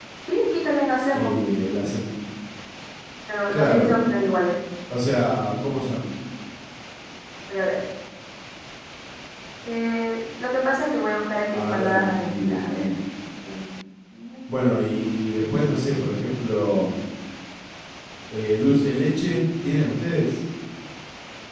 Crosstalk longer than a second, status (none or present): present